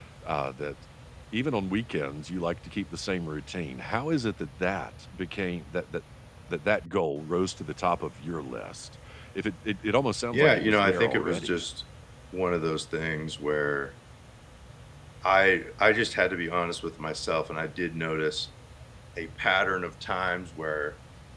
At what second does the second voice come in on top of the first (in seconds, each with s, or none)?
10.3 s